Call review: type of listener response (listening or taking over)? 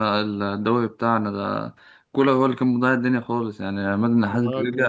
listening